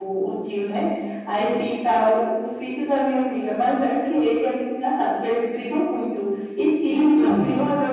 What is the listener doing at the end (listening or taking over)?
listening